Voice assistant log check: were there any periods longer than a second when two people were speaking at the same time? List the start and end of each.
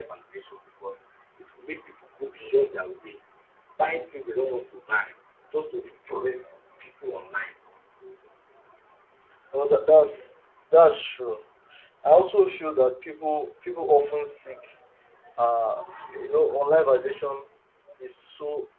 none

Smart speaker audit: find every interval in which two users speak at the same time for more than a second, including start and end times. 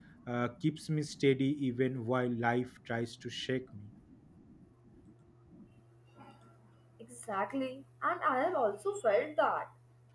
none

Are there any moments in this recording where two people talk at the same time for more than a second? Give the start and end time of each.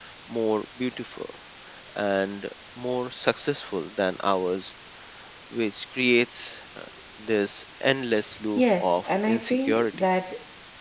8.6-9.8

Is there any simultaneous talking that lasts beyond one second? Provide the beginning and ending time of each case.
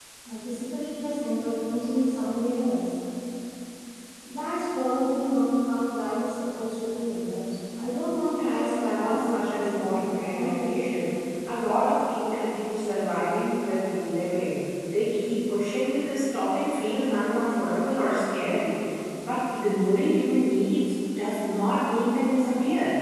8.4-10.9

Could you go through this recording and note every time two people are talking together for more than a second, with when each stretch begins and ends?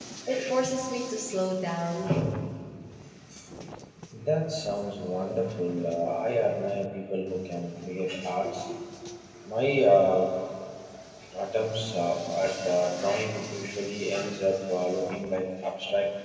none

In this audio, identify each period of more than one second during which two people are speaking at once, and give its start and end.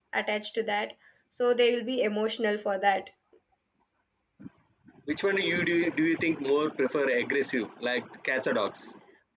none

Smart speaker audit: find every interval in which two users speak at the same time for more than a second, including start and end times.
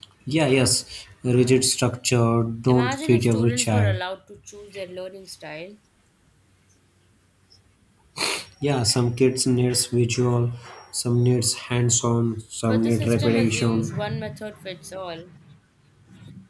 2.7-4.0, 12.6-14.2

